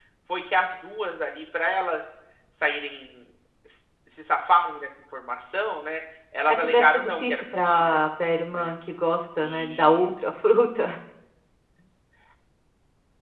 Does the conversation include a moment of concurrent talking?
Yes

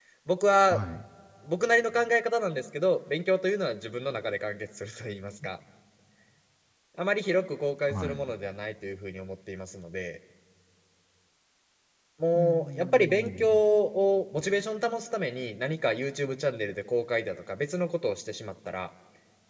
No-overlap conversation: No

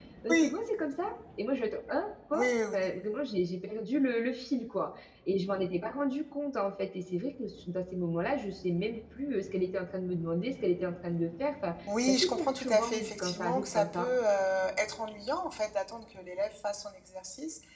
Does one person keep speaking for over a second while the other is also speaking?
Yes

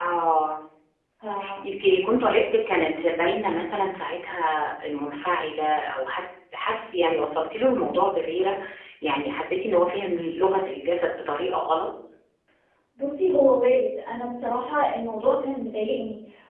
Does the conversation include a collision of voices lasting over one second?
No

